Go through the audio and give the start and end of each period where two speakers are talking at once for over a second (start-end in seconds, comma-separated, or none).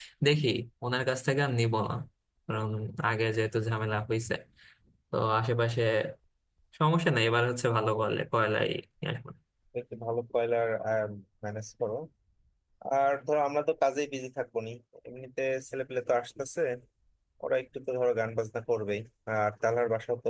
none